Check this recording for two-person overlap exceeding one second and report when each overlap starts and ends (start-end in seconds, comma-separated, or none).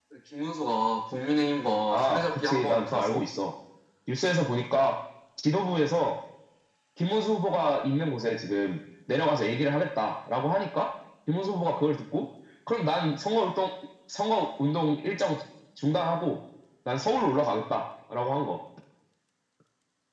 1.9-3.2